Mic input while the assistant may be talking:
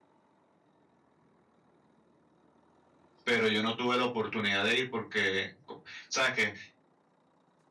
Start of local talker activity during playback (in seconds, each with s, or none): 3.2 s